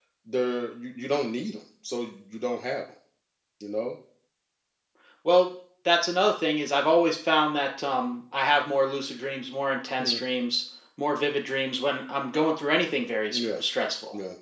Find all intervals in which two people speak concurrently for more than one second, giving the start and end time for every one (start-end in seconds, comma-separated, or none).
none